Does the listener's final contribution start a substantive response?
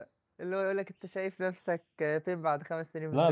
Yes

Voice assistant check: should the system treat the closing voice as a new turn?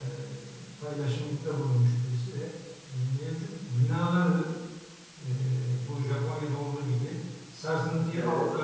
No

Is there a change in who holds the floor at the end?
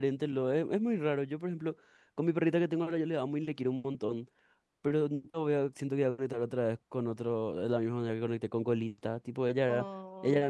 No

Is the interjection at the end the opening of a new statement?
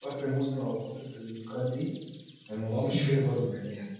No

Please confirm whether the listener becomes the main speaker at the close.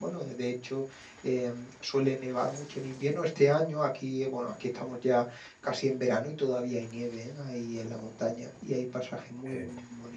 No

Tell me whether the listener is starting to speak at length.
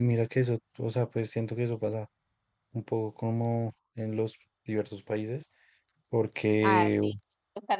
Yes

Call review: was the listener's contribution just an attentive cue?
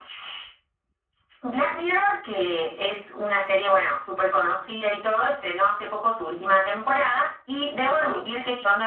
Yes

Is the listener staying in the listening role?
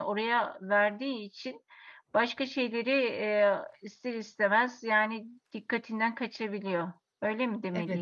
No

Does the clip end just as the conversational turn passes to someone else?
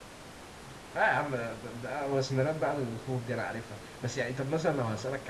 No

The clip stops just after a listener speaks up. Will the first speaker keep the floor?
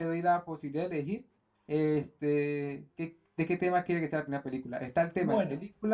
Yes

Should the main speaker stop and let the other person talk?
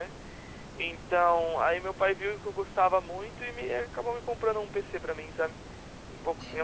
Yes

